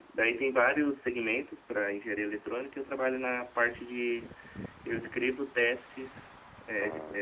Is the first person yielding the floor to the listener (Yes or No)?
No